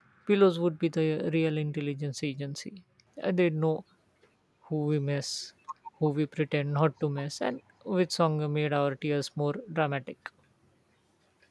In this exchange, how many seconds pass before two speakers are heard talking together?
none

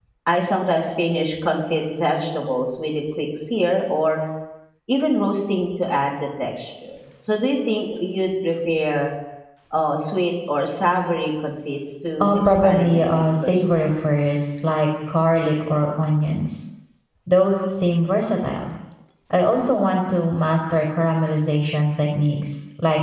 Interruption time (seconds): 12.2 s

